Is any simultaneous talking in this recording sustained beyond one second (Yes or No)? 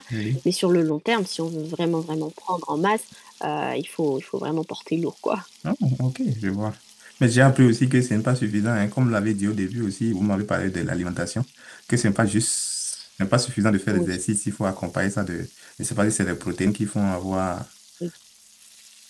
No